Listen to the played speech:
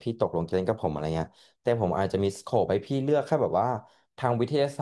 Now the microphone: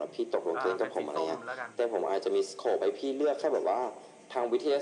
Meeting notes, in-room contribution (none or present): present